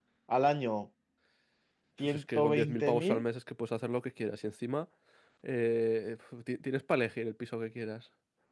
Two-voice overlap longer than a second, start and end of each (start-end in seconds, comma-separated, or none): 2.0-3.2